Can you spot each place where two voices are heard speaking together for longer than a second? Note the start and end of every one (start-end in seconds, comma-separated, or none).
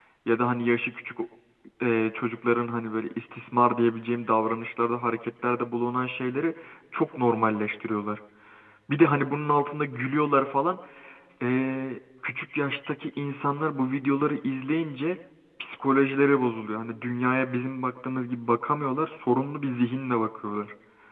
none